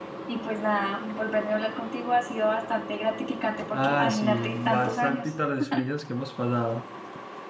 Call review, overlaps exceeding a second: present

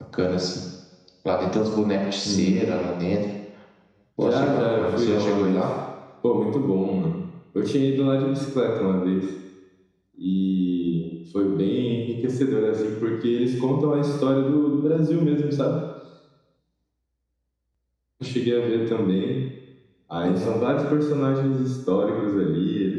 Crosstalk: present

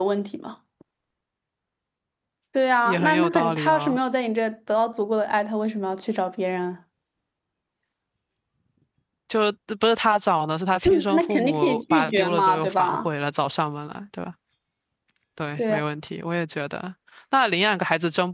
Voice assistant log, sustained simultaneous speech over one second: present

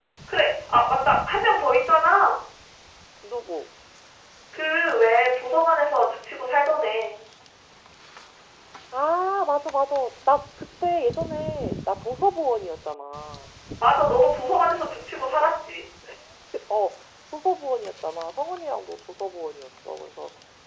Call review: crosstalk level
none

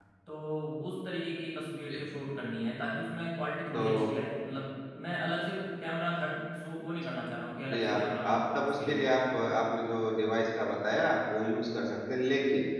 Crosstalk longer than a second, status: present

